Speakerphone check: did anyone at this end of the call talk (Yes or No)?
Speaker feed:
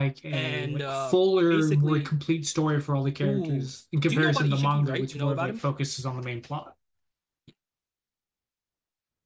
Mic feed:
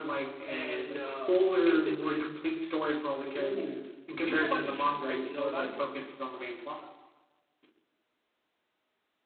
No